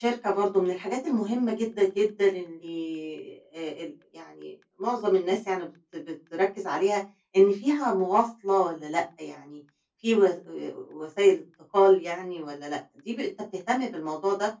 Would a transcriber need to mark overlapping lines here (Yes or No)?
No